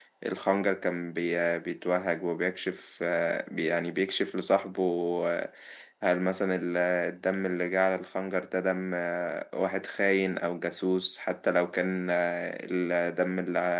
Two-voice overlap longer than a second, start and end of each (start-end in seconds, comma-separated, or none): none